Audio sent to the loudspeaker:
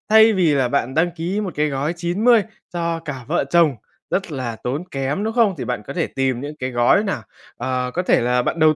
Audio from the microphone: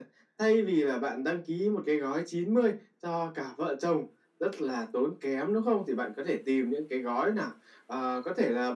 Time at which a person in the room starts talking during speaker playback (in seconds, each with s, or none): none